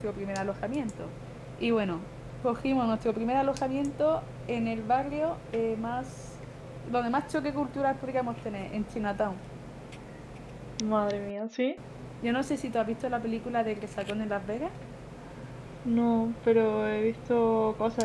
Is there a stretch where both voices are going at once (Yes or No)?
No